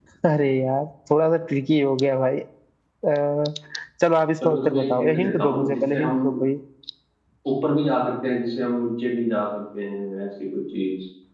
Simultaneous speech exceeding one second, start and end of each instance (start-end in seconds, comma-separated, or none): 4.4-6.2